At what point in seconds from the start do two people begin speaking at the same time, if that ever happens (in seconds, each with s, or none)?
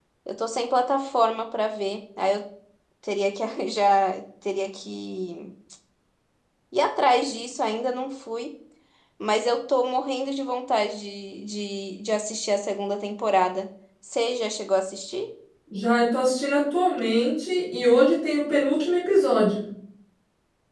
none